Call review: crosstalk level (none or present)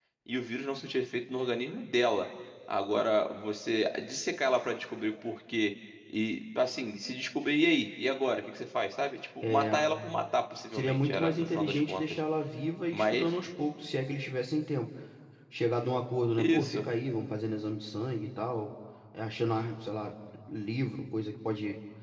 present